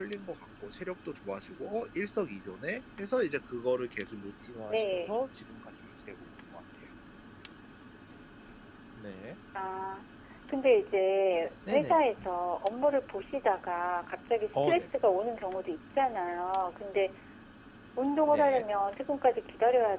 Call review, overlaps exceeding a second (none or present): none